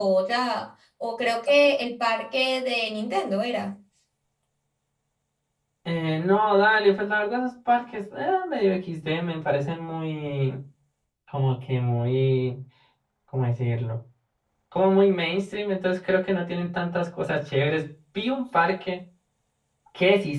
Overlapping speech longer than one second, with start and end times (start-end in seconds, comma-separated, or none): none